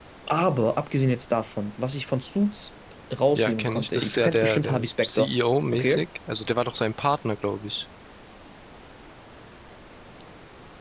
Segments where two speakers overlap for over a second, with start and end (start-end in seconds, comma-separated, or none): 3.3-5.3